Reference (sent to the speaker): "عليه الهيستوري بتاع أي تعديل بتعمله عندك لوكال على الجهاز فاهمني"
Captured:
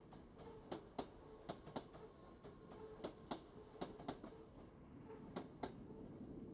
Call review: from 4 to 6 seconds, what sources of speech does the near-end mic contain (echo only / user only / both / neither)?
neither